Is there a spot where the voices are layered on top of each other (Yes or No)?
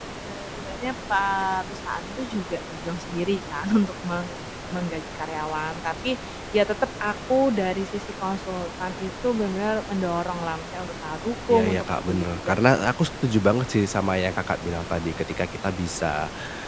Yes